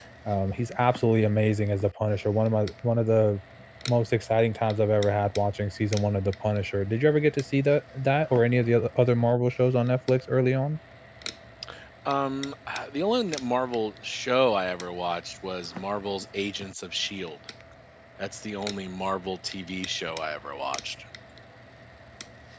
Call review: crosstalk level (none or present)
none